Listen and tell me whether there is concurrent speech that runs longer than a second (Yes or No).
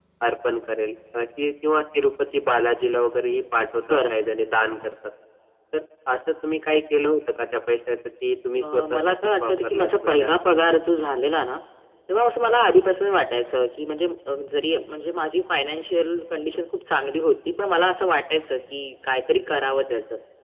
Yes